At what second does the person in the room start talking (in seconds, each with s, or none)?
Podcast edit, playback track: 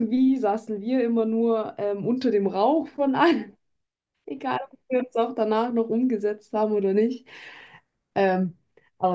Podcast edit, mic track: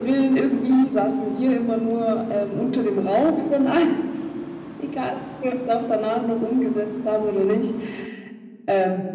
none